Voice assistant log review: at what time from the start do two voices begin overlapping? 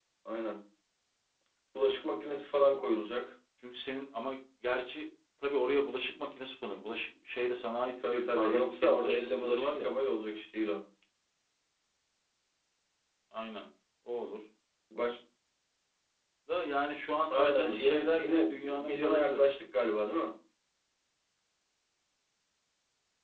8 s

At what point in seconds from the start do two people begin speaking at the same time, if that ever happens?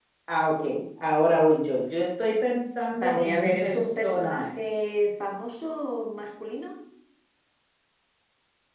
3 s

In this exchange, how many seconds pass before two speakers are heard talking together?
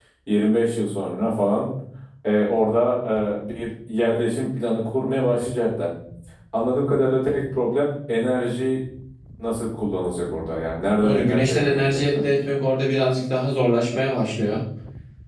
11 s

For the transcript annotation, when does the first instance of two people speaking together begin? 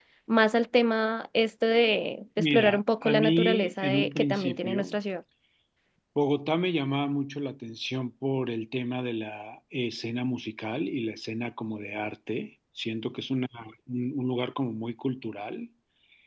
3 s

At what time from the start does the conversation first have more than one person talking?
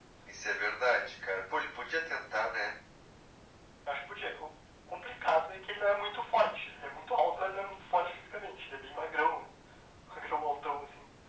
none

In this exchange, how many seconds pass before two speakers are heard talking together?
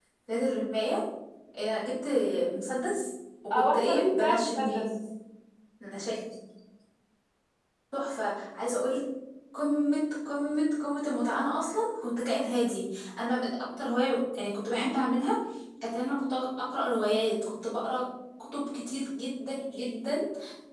4 s

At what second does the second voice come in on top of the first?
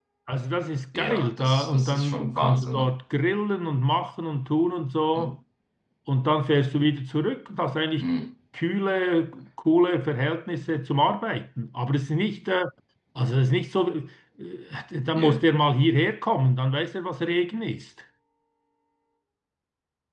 1 s

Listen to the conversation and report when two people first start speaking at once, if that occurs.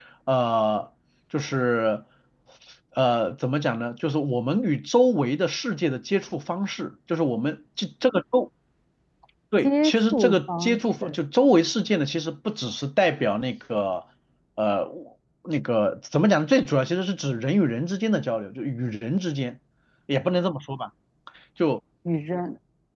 10 s

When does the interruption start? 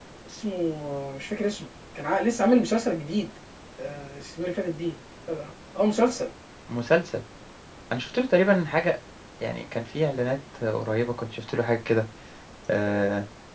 none

